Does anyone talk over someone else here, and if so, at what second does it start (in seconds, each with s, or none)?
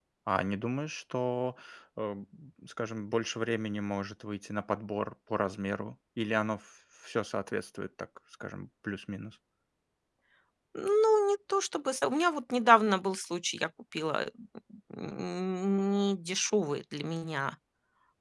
none